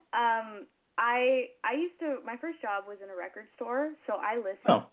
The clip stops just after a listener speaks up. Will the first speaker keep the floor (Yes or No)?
Yes